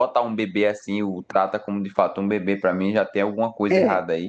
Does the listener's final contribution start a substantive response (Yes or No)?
Yes